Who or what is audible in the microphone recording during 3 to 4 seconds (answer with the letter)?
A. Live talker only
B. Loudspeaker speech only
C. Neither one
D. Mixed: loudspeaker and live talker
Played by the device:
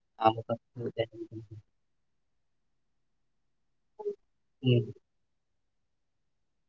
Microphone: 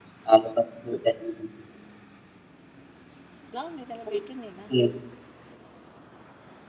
D